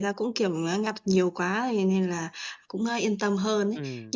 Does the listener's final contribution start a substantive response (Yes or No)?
No